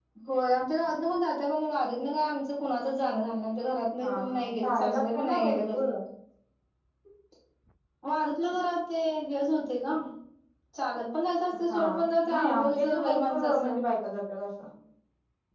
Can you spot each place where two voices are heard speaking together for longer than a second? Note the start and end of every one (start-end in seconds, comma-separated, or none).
4.0-5.9, 12.3-13.7